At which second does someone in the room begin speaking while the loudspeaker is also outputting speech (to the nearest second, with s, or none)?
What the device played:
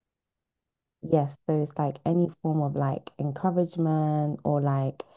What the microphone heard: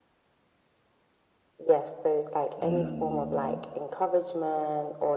3 s